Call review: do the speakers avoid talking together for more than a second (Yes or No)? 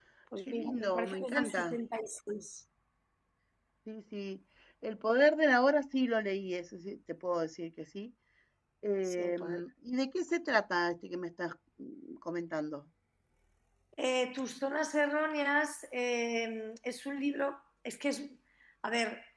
No